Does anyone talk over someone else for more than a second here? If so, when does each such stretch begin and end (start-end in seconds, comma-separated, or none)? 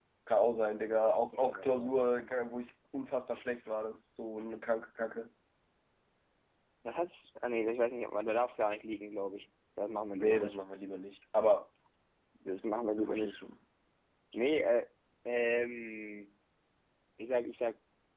none